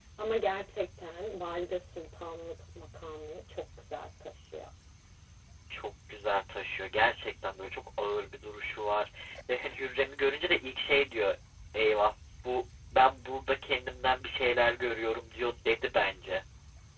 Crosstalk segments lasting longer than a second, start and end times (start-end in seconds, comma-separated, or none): none